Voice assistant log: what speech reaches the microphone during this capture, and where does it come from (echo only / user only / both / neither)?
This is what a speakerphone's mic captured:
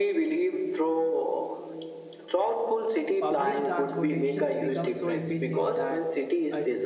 both